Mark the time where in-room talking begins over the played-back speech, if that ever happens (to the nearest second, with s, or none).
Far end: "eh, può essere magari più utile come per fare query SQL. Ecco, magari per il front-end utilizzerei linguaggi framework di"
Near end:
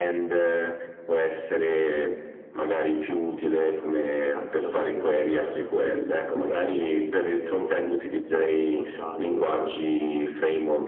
4 s